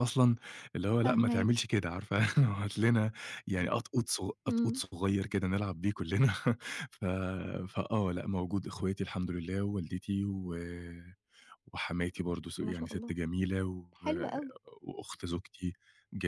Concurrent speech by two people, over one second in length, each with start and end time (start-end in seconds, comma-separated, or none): none